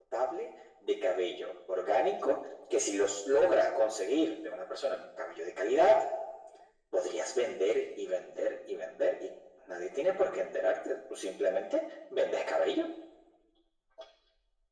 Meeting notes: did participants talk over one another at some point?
No

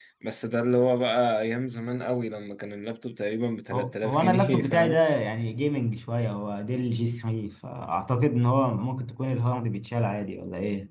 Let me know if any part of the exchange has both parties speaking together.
Yes, from 3.7 s

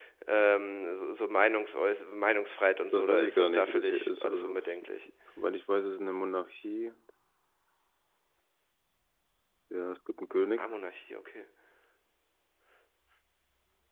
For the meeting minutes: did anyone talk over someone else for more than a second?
Yes, from 2.9 s

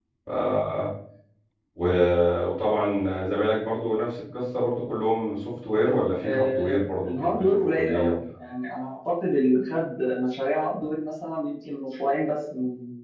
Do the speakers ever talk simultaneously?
Yes, from 6.2 s

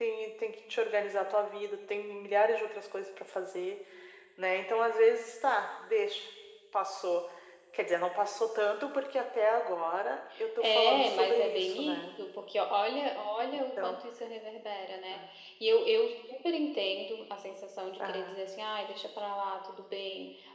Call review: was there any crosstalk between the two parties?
Yes, from 10.6 s

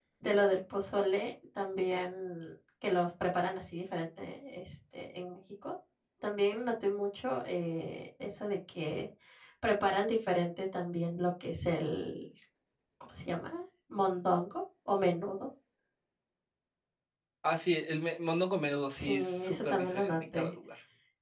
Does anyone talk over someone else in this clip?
Yes, from 19.0 s

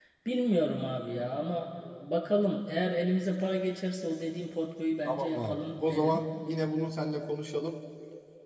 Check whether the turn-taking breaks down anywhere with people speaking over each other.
Yes, from 5.0 s

